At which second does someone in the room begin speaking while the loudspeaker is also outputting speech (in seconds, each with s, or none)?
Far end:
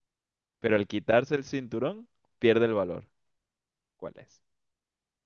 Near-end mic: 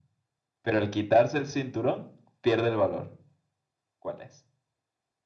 none